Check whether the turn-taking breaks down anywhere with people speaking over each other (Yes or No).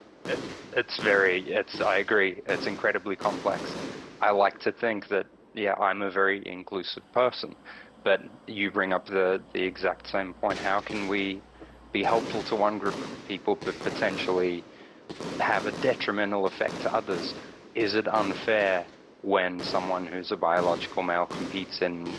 No